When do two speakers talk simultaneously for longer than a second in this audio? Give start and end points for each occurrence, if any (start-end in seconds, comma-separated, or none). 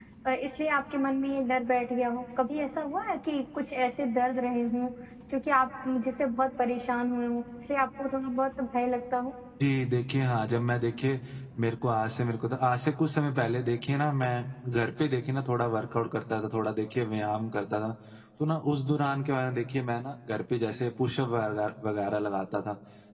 none